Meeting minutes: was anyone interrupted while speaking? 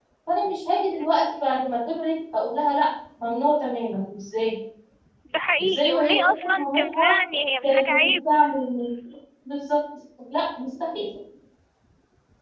Yes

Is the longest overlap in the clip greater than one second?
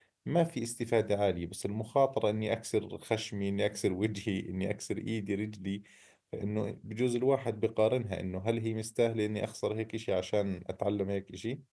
No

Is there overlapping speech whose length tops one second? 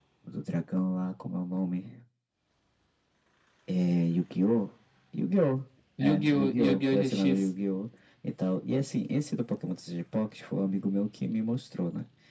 Yes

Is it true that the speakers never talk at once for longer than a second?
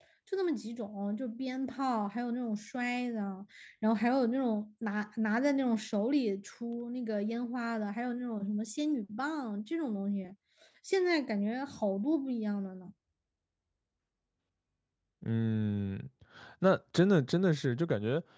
Yes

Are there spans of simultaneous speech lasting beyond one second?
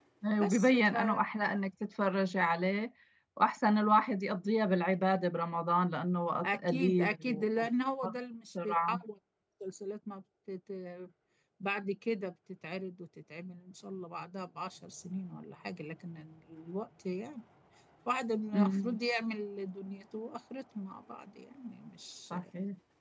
Yes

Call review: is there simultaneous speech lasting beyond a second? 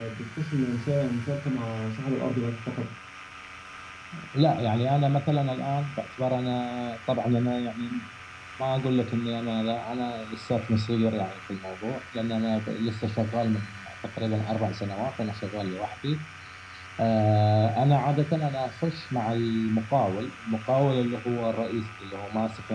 No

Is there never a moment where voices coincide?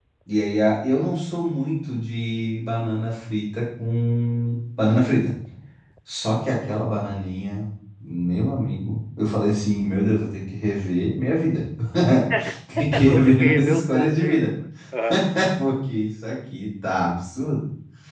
No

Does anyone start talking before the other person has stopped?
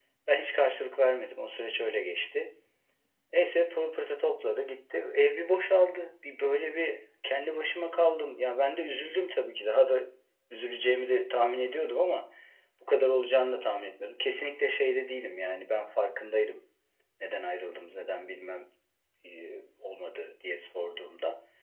No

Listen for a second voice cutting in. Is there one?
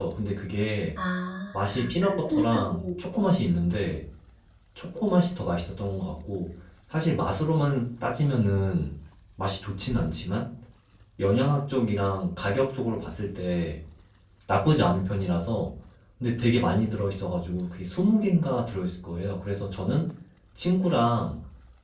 Yes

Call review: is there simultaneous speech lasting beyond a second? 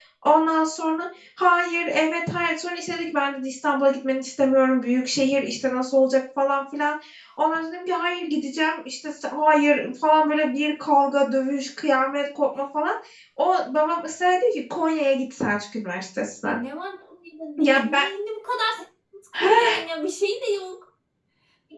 No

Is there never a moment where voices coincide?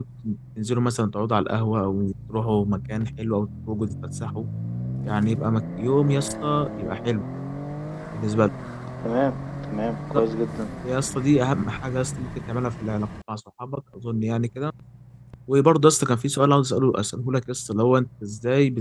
Yes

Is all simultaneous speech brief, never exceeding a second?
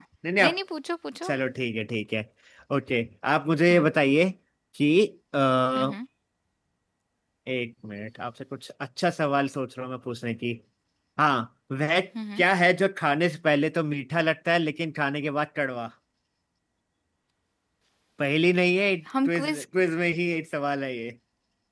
Yes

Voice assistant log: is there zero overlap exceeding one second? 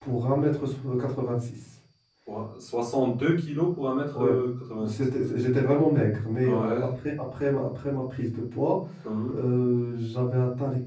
Yes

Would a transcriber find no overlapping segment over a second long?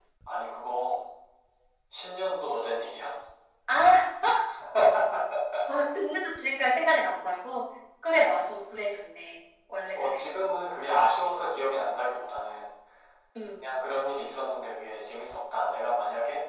Yes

